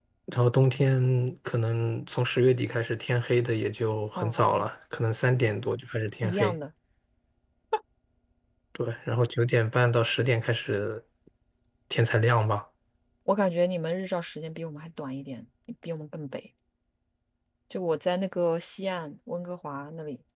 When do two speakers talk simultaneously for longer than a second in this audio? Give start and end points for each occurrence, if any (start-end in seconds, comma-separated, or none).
none